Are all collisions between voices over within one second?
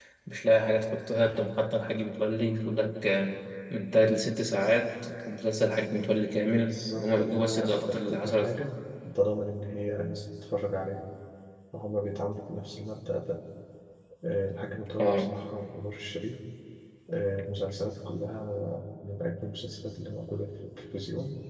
No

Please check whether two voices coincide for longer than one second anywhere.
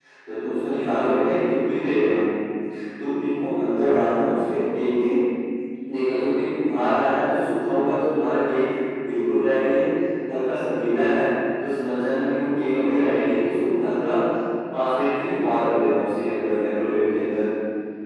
No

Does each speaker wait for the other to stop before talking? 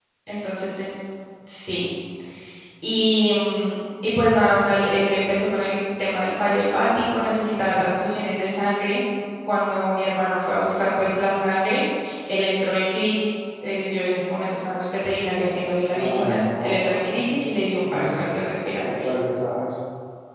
No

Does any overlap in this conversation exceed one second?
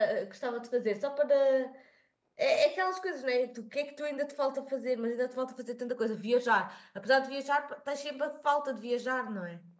No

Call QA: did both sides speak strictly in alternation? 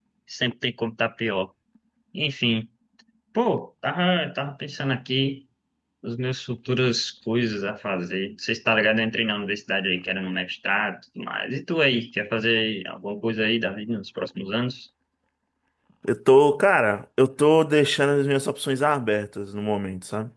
Yes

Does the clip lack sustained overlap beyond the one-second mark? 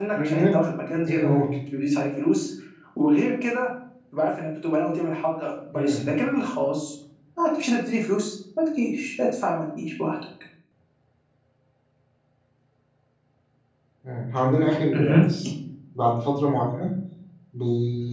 Yes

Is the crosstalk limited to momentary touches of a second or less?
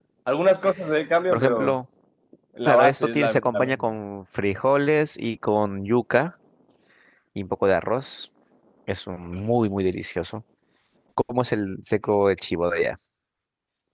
No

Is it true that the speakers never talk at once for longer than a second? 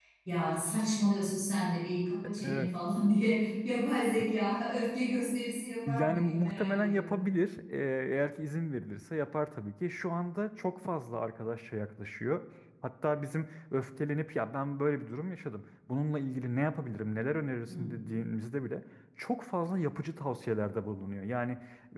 No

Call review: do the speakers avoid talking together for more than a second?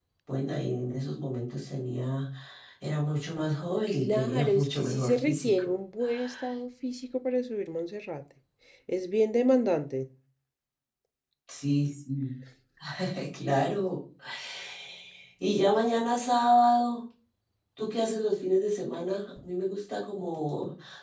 No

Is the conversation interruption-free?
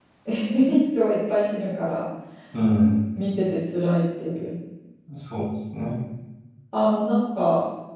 Yes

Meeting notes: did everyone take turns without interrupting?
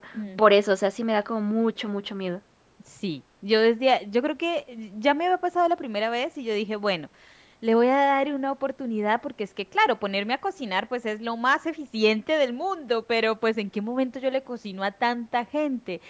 Yes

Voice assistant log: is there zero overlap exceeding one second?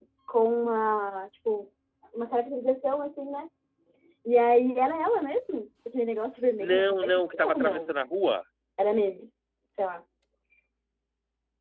No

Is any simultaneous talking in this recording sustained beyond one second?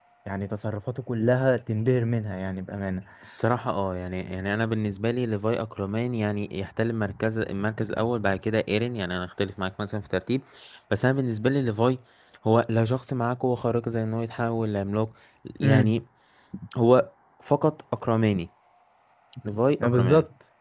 No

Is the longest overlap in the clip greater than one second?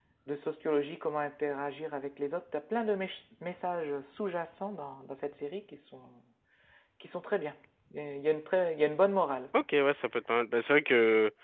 No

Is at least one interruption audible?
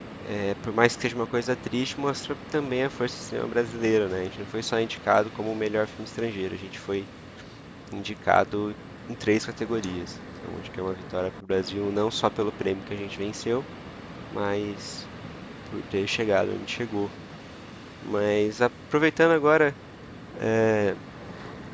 No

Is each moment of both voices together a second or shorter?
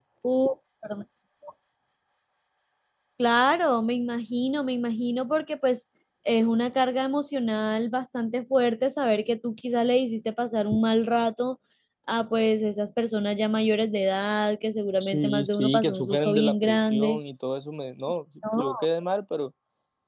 No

